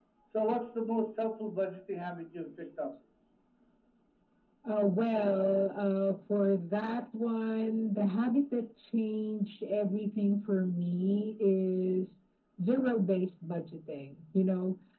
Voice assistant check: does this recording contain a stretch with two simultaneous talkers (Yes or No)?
No